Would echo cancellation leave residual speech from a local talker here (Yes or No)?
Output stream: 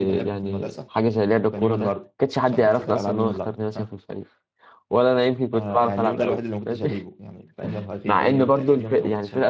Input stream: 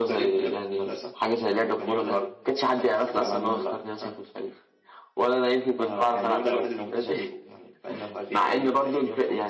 No